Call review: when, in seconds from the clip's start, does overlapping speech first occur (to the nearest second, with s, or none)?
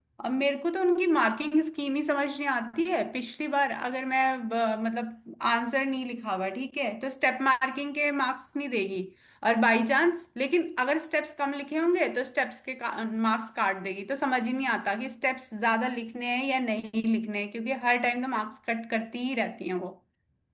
none